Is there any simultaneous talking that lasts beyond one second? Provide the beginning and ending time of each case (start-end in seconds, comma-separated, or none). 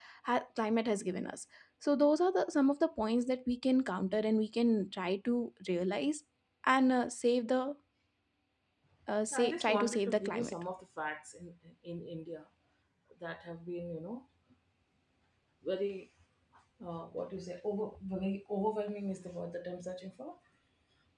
9.3-10.5